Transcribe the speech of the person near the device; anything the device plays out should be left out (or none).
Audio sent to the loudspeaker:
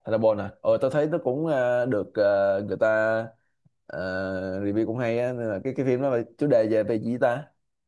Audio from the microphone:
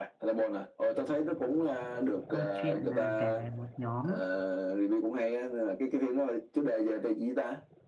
câu chuyện là kể về một nhóm